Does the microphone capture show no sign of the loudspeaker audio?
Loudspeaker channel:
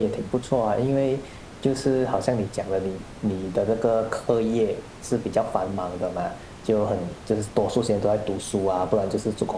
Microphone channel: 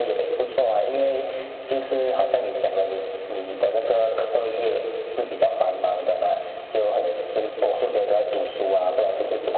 No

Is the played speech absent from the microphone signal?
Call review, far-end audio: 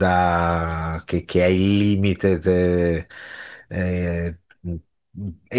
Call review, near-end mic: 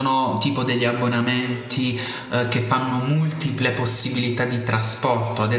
Yes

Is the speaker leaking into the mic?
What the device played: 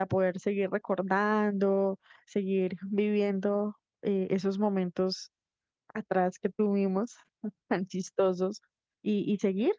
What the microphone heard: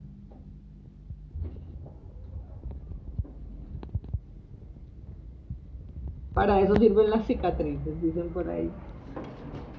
No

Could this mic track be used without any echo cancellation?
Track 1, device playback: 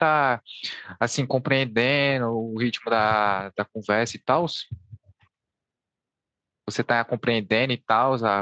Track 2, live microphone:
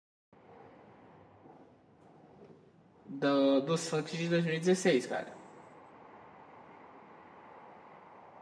Yes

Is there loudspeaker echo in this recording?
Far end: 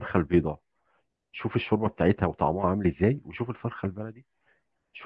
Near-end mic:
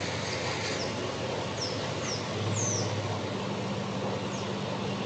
No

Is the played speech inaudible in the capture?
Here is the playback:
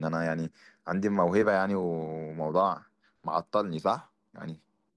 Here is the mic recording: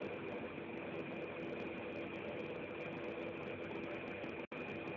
Yes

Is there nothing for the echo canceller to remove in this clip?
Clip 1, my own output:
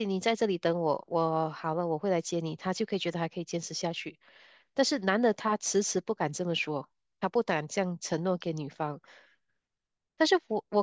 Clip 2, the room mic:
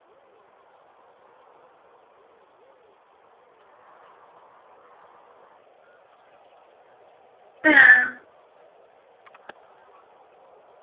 Yes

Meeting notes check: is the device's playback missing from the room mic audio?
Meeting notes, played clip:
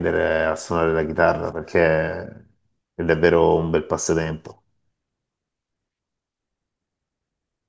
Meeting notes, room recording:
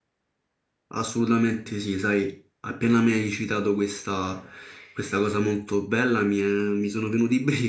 Yes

